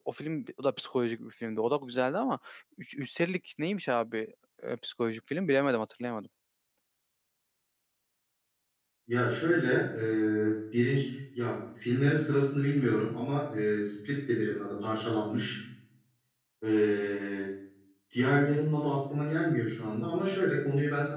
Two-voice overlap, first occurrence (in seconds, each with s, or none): none